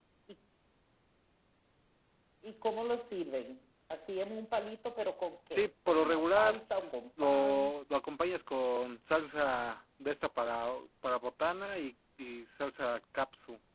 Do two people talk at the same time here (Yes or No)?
Yes